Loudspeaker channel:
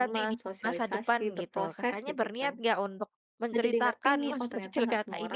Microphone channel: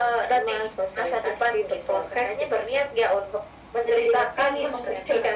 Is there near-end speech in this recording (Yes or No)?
No